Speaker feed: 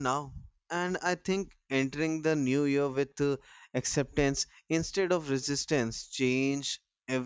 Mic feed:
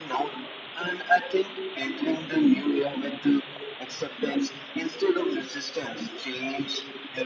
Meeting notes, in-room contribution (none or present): none